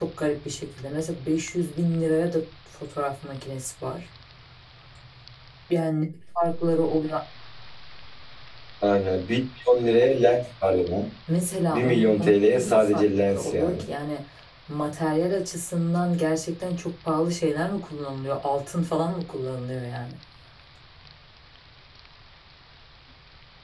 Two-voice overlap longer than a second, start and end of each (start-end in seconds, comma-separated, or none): 11.7-13.8